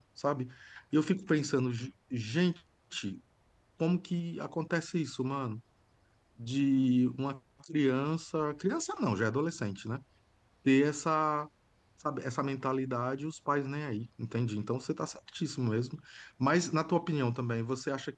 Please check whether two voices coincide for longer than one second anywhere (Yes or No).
No